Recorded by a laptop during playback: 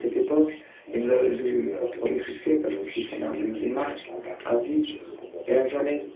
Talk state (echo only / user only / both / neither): echo only